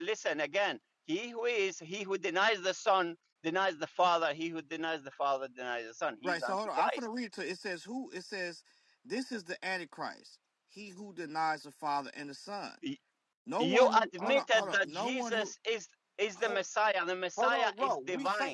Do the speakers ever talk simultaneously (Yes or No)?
Yes